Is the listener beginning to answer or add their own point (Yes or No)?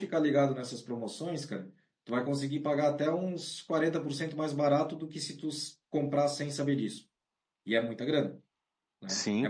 Yes